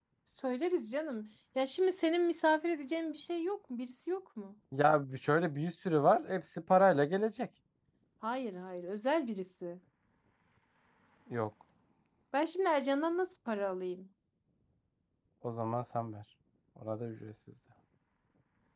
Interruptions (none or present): none